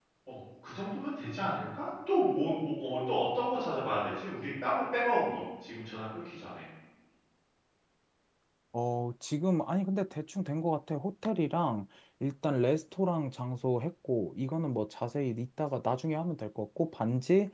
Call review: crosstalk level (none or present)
none